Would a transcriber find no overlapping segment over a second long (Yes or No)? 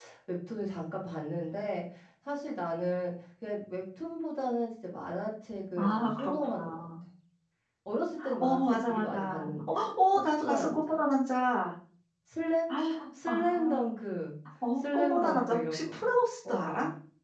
No